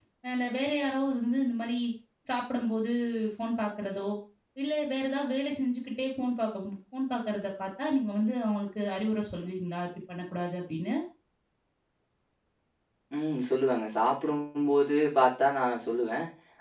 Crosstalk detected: No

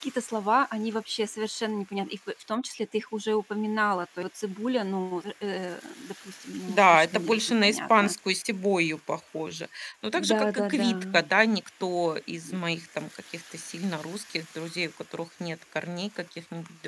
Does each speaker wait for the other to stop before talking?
No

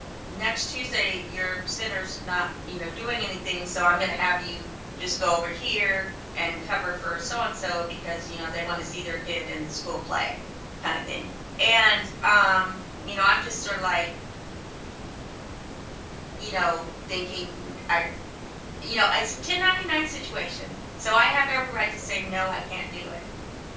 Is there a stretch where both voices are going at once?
No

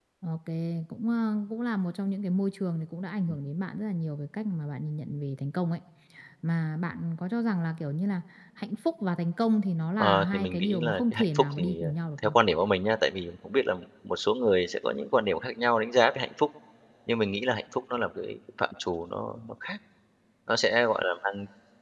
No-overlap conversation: No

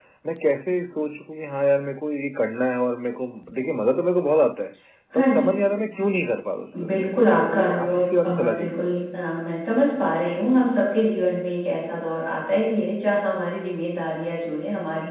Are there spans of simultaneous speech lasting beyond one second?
Yes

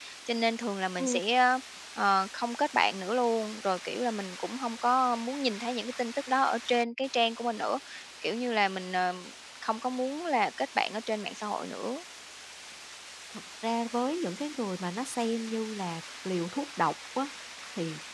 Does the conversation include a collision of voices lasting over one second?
No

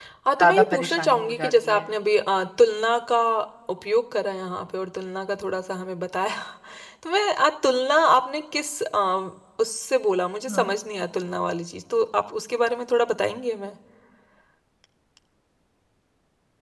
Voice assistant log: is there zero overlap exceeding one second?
No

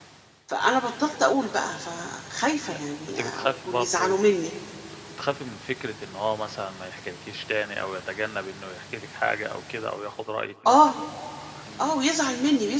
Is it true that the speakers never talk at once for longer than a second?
No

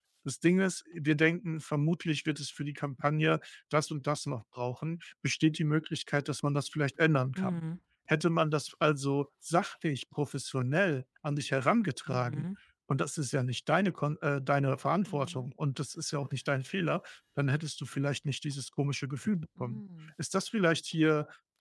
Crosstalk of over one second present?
No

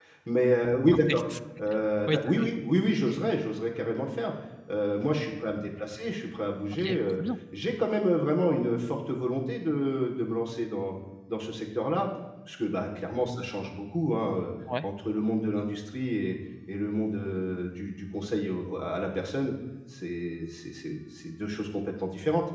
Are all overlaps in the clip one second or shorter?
Yes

